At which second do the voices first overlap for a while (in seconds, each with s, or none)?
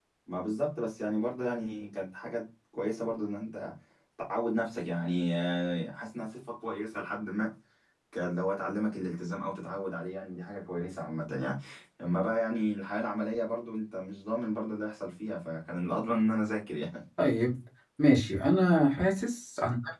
none